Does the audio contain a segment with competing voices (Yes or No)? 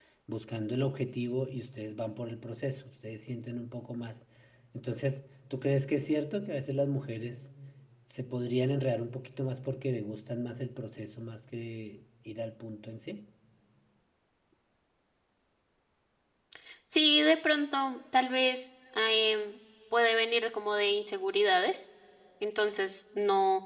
No